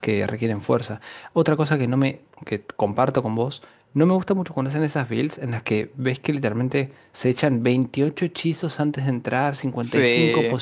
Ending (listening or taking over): listening